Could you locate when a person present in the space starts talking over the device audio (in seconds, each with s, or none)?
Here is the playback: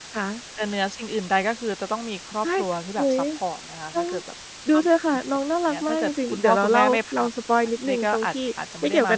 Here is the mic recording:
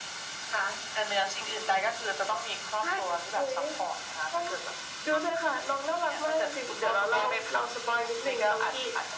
none